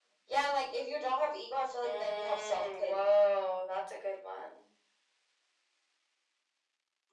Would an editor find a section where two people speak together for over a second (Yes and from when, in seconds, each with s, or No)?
Yes, from 1.8 s